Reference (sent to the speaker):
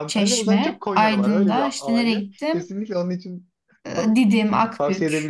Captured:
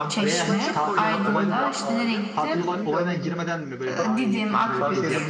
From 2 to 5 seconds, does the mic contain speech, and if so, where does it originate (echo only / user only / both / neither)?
both